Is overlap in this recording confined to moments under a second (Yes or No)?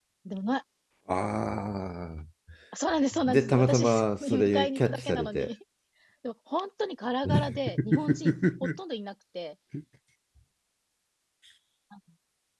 No